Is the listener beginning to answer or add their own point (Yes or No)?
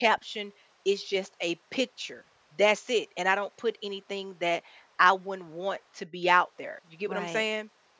Yes